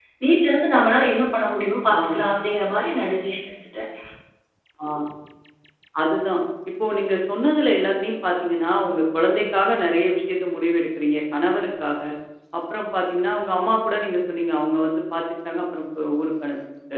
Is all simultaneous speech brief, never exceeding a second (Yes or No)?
Yes